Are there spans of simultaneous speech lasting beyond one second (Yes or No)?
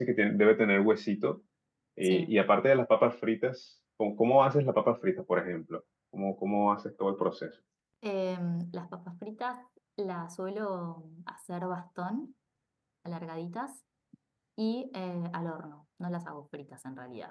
No